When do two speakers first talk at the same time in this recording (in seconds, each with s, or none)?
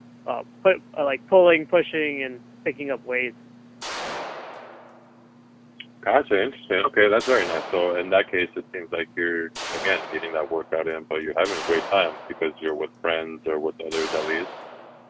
none